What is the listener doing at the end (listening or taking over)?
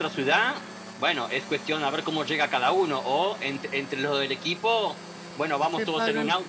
listening